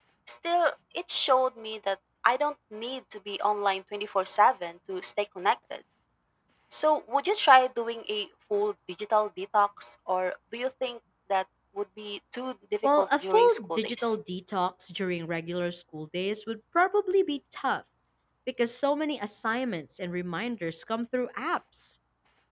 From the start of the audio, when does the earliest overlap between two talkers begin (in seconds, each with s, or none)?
12.8 s